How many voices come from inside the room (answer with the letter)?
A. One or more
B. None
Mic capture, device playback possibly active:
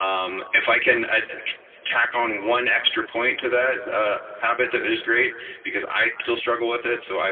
B